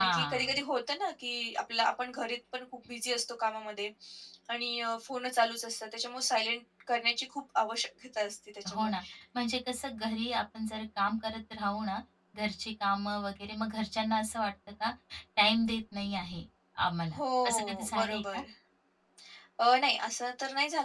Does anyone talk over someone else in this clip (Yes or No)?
Yes